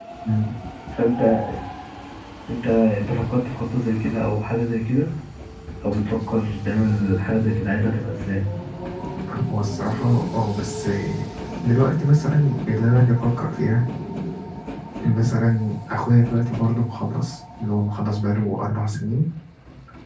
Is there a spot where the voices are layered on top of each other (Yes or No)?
No